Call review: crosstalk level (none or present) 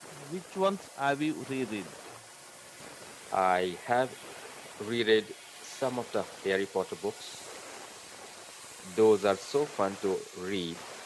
none